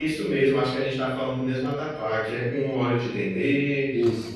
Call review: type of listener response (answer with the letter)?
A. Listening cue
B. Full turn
A